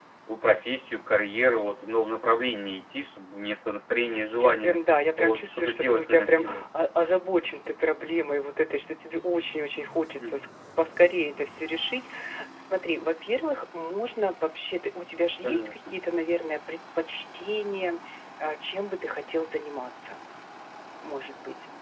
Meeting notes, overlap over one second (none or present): present